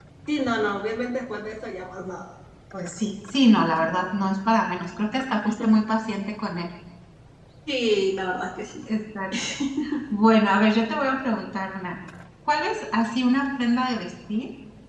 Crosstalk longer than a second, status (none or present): none